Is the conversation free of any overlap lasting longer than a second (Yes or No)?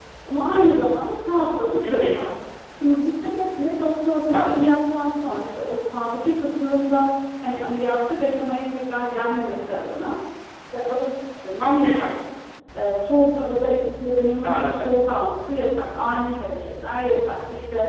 Yes